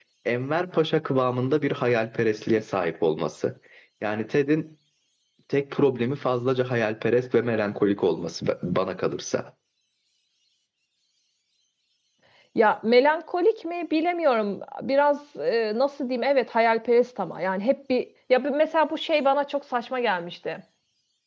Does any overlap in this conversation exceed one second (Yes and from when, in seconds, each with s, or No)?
No